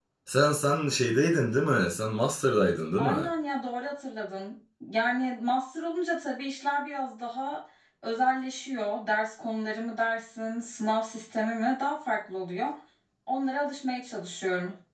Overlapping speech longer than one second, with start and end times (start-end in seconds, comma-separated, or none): none